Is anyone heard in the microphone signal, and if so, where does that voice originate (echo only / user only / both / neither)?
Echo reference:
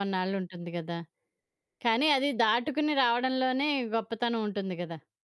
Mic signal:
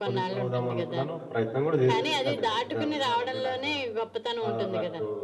both